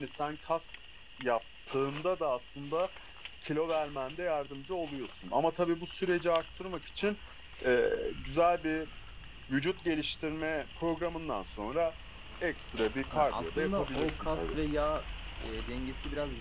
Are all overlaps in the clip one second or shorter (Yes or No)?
No